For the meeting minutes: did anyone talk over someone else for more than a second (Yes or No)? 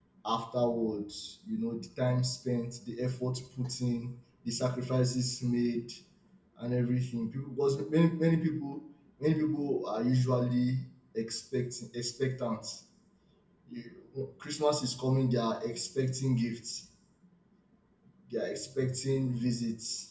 No